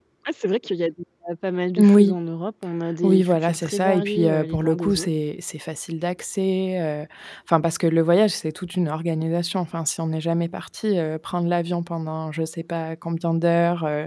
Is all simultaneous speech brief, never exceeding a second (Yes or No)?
No